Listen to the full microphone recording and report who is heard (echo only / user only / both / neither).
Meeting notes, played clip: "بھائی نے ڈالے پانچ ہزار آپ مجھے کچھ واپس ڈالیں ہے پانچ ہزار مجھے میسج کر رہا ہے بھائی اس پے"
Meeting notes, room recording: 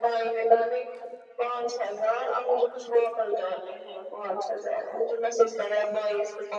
echo only